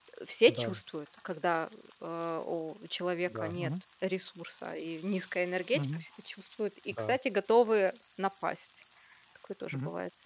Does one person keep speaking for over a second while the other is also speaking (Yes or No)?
No